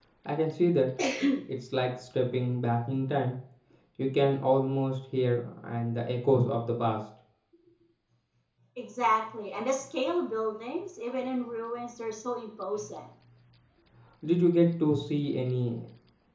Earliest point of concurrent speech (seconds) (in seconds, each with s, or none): none